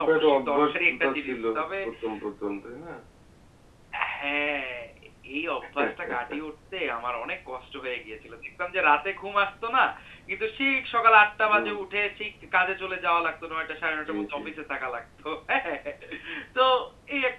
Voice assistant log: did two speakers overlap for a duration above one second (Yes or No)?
Yes